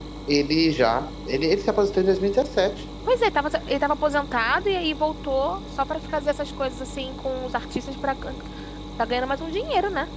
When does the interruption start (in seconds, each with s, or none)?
none